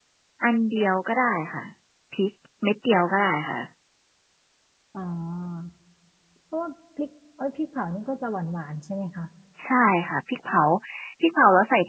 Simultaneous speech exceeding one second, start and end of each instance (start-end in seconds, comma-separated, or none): none